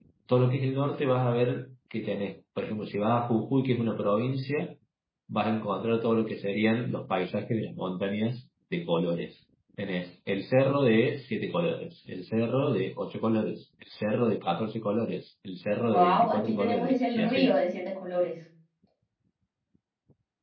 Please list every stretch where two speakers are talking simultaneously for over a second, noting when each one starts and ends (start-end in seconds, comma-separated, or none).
15.9-17.6